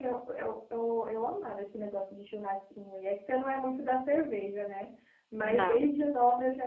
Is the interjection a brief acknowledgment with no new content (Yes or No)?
Yes